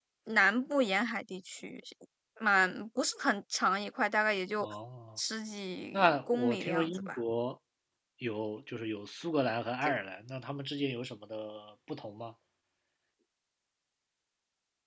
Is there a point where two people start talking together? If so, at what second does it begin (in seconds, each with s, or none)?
5.9 s